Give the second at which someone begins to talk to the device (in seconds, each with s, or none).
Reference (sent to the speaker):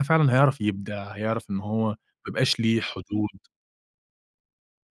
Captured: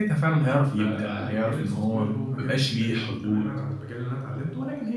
0.8 s